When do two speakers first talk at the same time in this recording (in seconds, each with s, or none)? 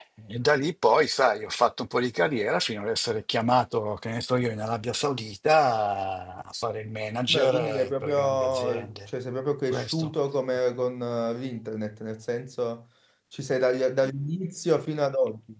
7.3 s